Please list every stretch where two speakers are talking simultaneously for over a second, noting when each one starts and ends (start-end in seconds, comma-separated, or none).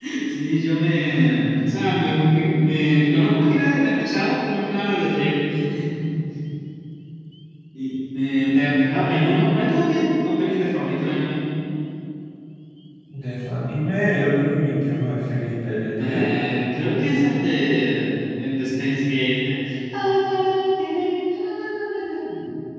none